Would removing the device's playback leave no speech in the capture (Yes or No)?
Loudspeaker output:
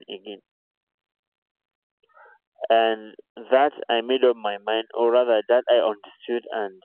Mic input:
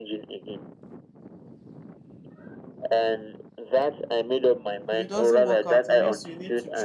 No